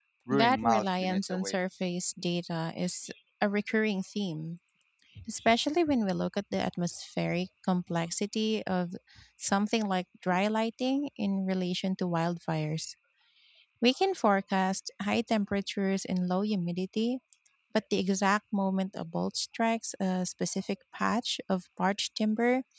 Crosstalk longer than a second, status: present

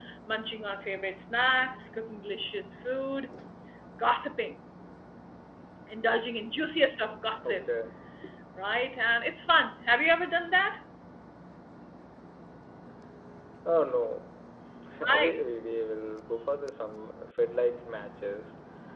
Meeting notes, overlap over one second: none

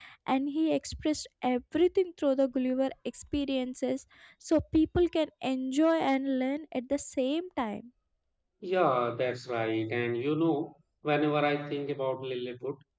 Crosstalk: none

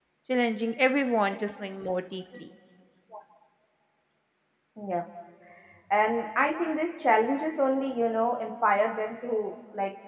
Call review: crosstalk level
none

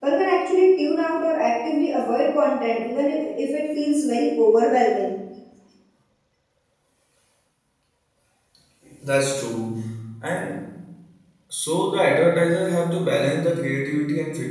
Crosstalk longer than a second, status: none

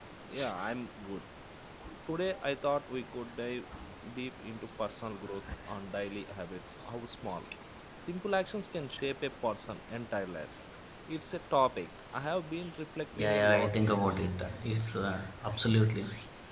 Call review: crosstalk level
present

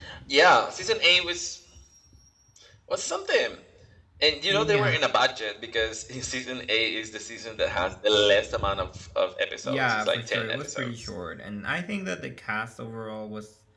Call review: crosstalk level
present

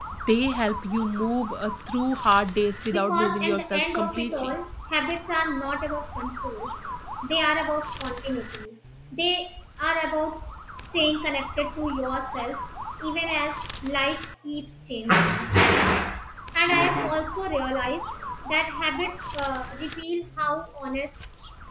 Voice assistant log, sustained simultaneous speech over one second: present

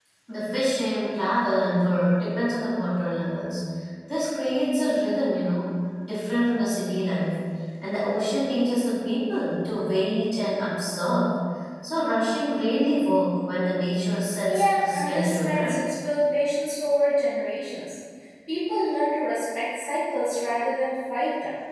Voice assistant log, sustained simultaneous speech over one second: present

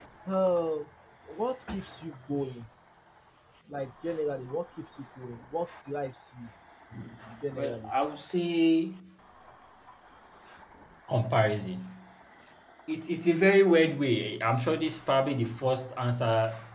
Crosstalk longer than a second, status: none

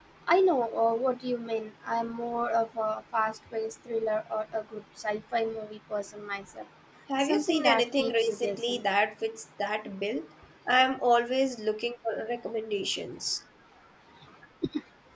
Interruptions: present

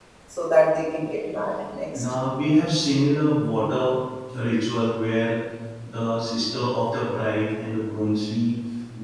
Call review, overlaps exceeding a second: none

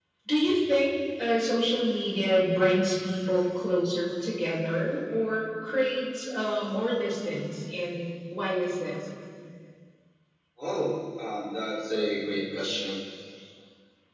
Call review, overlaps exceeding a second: none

